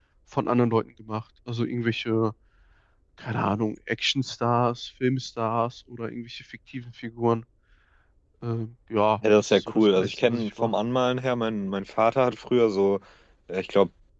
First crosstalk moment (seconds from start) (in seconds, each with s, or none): 9.2 s